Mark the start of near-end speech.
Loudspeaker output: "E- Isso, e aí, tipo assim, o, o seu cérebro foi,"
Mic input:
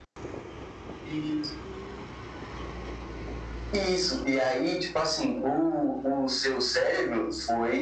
none

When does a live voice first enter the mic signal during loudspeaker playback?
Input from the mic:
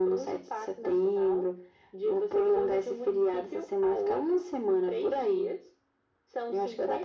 none

